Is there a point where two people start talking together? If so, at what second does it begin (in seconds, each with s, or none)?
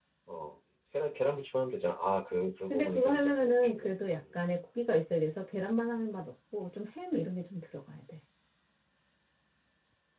2.7 s